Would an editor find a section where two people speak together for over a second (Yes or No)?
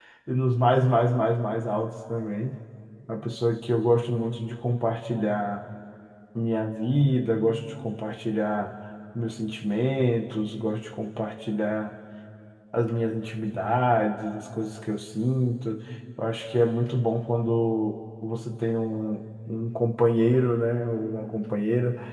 No